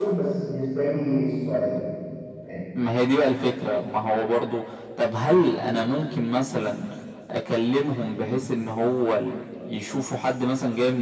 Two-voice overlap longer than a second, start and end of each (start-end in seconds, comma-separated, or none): none